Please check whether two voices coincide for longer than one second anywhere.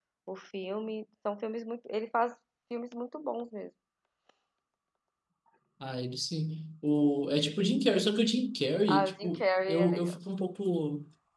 Yes, from 8.9 s

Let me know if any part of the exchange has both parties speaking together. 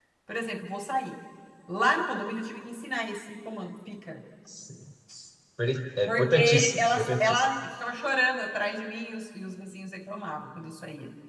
Yes, from 6.1 s

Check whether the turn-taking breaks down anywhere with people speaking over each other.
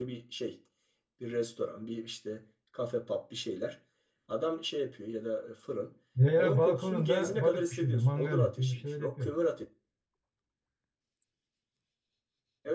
Yes, from 6.4 s

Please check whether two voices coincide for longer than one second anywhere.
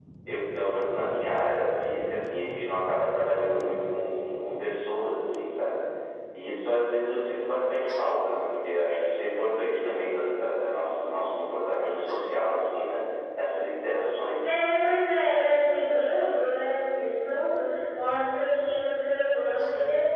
No

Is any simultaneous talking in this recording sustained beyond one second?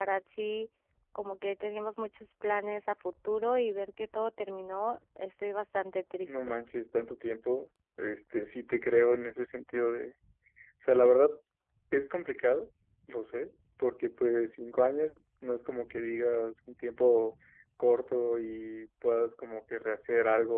No

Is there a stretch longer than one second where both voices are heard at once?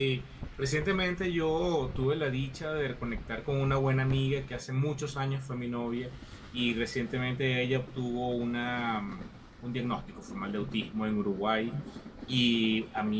No

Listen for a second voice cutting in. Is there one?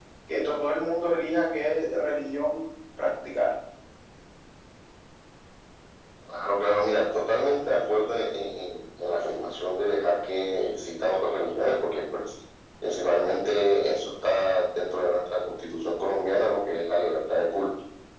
No

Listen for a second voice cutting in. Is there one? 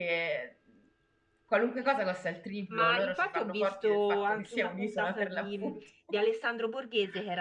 Yes, from 2.7 s

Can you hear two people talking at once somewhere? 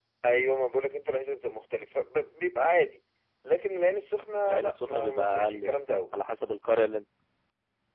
Yes, from 4.4 s

